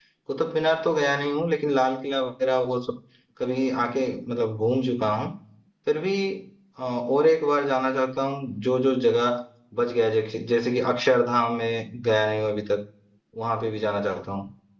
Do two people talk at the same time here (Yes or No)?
No